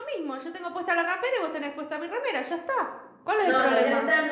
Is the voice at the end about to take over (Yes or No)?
Yes